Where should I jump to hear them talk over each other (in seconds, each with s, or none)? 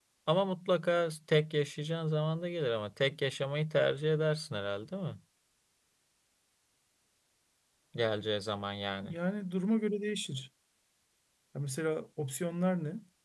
none